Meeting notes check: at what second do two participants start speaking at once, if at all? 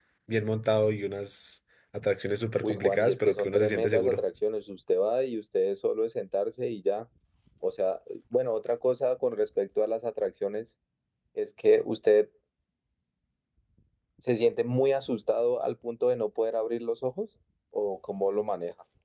3 s

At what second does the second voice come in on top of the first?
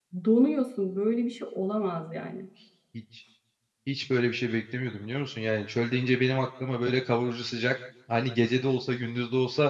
none

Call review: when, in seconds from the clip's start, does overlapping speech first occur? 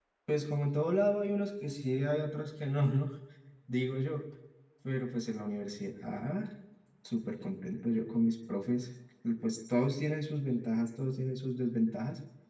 none

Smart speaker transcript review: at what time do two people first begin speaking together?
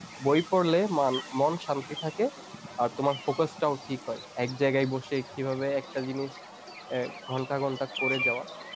none

